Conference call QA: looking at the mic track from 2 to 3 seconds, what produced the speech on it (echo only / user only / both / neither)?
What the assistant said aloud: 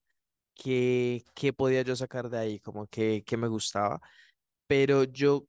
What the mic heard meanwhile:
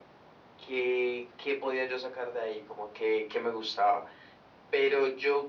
echo only